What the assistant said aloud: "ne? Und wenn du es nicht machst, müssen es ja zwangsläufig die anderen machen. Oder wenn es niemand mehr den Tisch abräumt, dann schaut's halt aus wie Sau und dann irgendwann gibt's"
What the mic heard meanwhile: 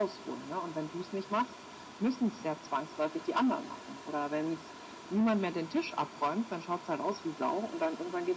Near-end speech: none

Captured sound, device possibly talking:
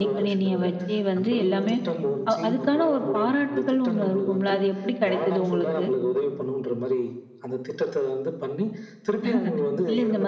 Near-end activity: present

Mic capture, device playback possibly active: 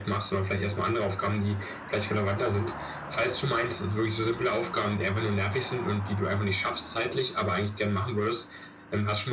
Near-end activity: none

